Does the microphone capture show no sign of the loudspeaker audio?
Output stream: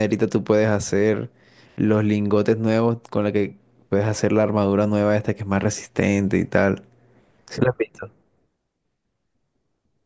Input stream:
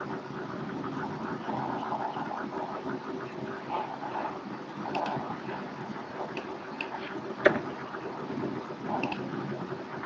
Yes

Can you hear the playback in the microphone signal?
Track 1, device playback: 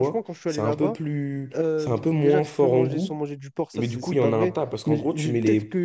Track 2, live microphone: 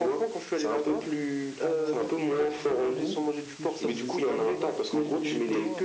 Yes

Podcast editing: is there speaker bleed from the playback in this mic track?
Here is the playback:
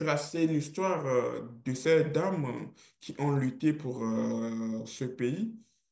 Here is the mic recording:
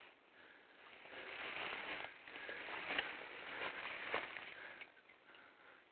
No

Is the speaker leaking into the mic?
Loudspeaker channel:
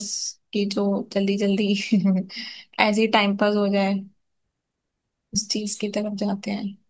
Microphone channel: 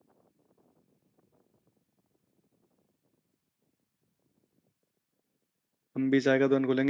No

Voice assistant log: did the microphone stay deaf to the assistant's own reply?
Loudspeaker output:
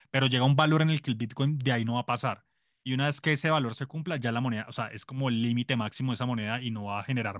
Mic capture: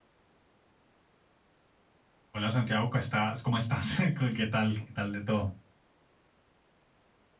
Yes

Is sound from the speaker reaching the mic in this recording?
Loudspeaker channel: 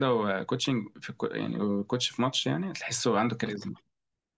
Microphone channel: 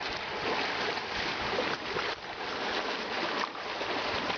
No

